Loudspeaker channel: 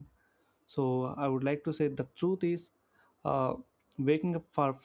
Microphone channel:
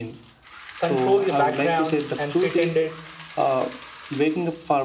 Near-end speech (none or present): present